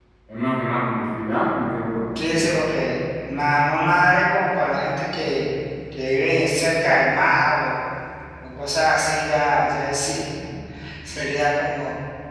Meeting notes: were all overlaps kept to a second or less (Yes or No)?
Yes